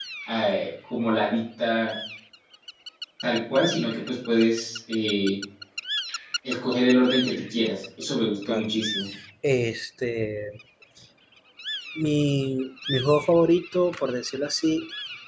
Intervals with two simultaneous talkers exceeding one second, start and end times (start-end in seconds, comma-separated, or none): none